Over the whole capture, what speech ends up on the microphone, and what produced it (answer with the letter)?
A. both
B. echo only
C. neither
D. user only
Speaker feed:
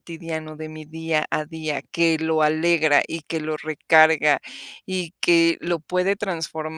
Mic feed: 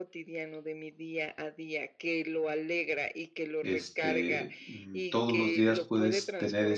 A